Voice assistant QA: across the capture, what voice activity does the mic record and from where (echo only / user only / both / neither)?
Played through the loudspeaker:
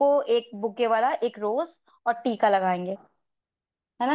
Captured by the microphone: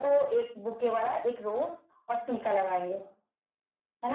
echo only